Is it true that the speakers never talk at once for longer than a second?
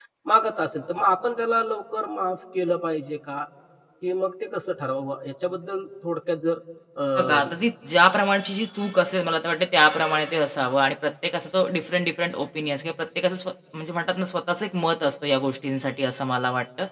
Yes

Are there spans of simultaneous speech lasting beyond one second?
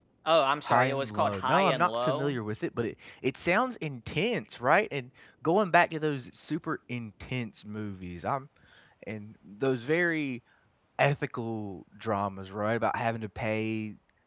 Yes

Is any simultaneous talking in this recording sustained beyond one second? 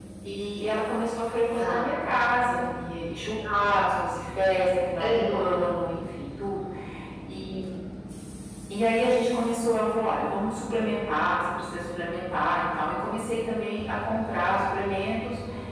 No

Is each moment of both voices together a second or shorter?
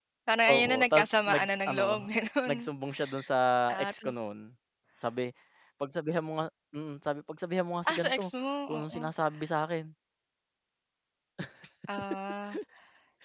No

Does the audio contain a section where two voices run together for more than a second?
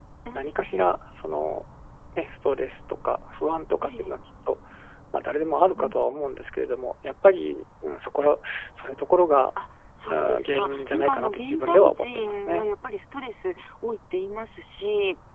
Yes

